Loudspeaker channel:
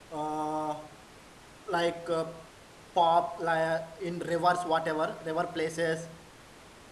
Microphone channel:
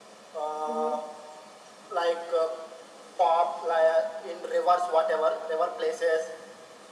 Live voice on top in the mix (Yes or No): No